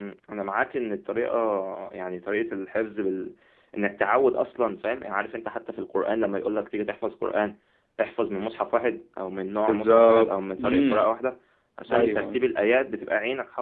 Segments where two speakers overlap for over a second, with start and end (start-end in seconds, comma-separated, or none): 9.7-11.1